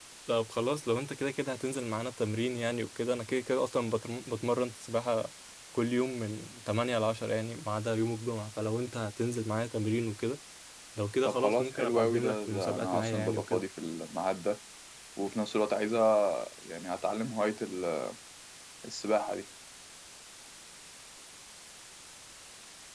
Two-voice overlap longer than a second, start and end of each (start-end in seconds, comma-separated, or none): 11.2-13.6